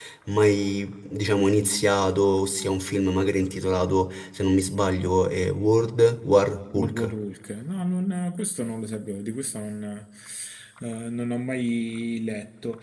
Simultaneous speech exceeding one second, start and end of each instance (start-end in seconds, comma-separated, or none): none